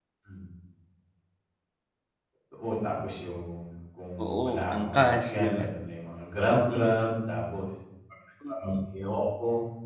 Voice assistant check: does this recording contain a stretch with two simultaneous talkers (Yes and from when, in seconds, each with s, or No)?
Yes, from 4.2 s